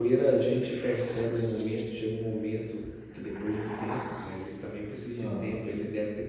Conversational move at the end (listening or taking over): listening